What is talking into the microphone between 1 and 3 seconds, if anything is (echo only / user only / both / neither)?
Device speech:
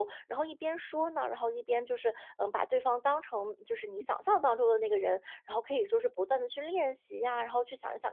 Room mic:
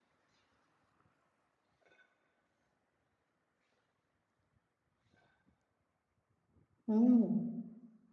neither